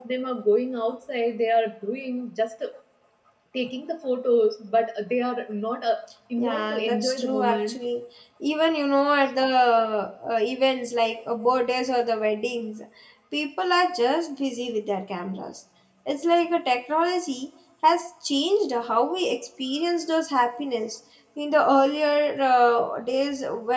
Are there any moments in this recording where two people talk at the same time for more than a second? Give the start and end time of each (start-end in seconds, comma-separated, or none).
6.4-7.8